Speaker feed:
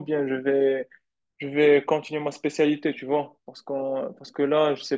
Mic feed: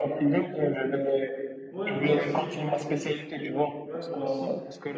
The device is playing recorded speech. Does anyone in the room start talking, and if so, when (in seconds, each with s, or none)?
1.7 s